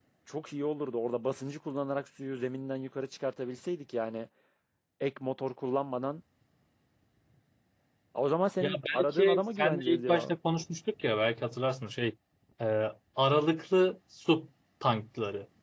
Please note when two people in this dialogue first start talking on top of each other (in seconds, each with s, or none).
8.6 s